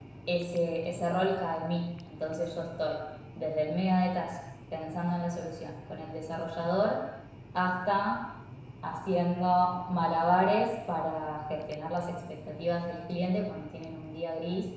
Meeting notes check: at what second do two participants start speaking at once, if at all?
none

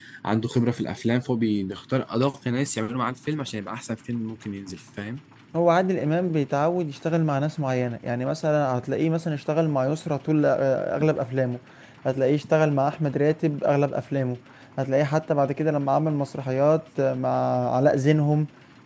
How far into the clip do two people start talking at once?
none

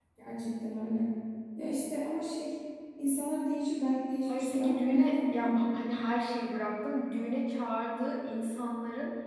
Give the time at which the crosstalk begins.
4.3 s

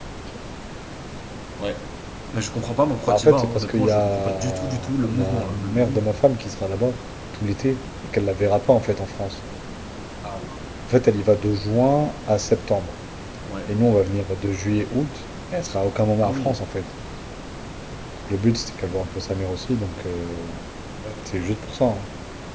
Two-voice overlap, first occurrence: 3.1 s

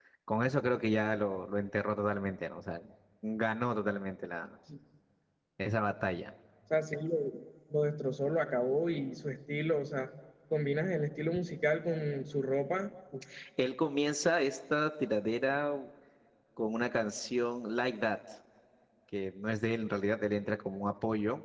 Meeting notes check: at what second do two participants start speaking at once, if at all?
none

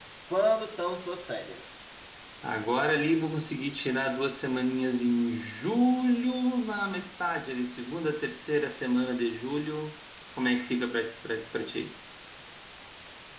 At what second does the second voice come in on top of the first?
none

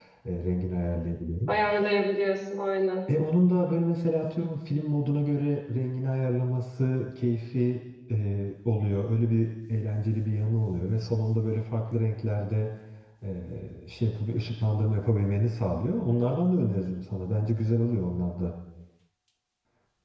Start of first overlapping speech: none

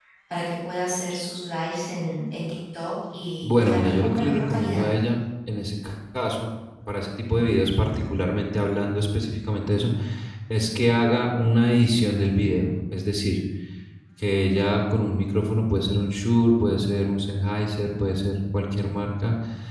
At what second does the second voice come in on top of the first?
3.4 s

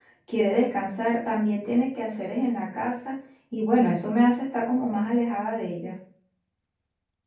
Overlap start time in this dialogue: none

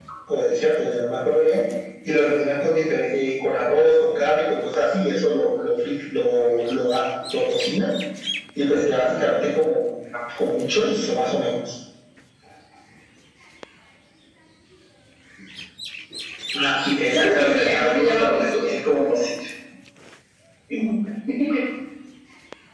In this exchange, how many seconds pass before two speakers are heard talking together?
17.1 s

